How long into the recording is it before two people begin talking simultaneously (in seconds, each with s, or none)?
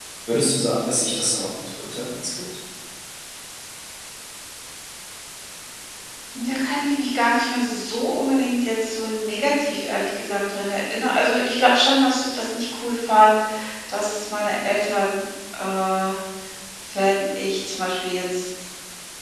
none